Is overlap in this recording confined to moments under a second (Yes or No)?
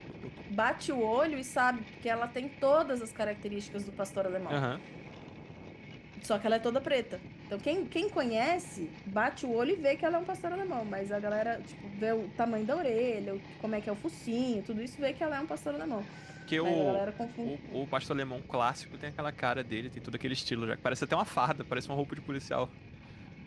Yes